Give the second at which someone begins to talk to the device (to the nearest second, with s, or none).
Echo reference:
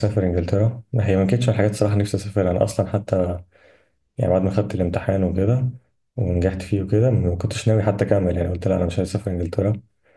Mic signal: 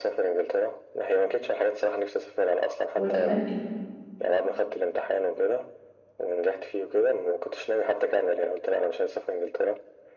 3 s